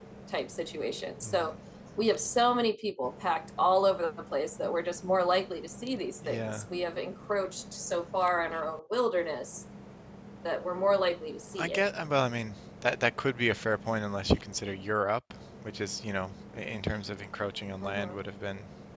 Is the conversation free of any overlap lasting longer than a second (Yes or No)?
Yes